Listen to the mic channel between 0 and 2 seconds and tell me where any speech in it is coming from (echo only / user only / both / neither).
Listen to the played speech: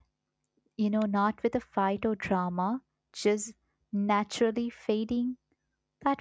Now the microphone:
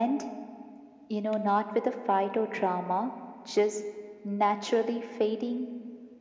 echo only